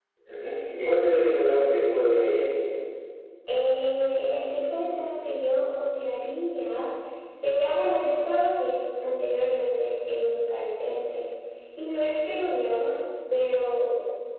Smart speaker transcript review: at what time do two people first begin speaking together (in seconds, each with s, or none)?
none